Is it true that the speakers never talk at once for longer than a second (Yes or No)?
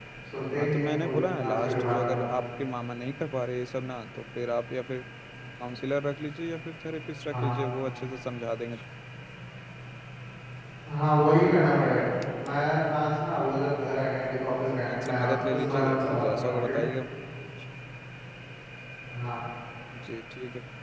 No